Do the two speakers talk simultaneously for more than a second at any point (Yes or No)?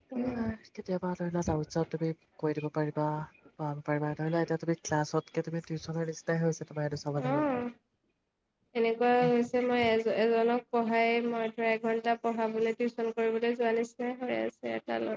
No